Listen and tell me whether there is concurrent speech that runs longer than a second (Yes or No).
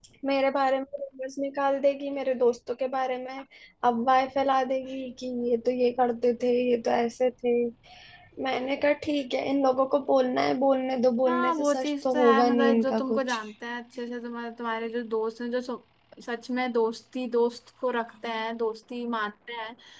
Yes